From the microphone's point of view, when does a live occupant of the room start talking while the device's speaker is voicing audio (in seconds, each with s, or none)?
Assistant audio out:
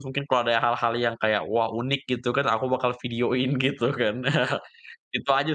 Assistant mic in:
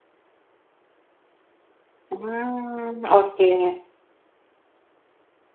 2.1 s